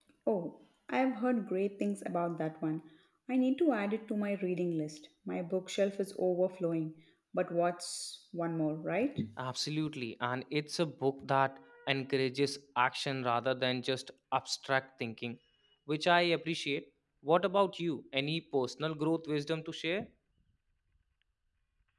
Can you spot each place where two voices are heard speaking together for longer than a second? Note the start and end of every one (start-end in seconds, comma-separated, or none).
none